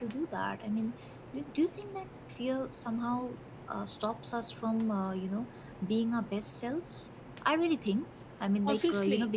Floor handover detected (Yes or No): Yes